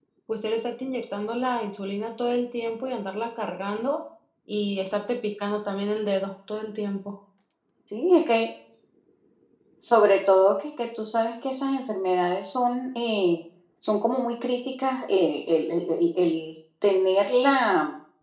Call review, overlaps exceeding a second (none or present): none